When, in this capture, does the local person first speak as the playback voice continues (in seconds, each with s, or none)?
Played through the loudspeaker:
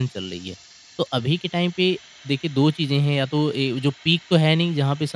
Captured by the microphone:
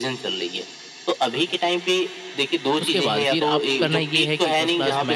2.8 s